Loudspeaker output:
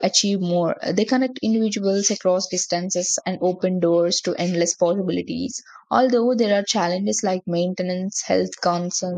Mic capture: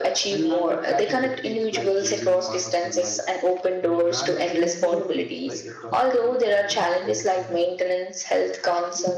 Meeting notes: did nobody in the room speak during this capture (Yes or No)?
No